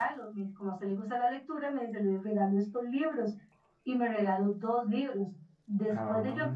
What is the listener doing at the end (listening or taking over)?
listening